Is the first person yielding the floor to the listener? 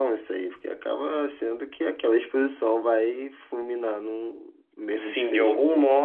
Yes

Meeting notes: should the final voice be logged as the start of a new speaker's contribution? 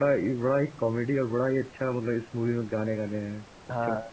Yes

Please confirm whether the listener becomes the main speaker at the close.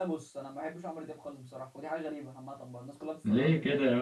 Yes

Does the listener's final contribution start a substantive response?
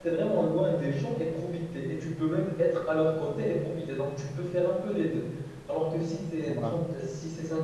No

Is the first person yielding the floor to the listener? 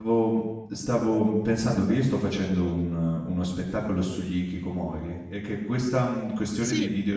No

